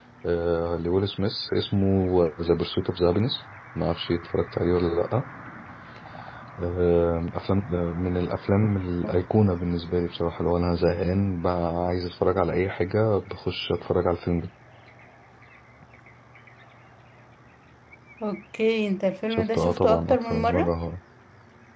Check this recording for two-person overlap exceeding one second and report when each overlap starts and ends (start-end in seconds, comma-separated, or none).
19.3-20.7